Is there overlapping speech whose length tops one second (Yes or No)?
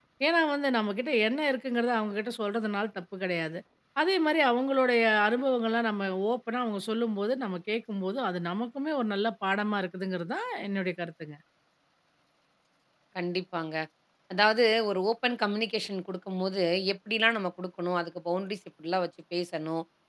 No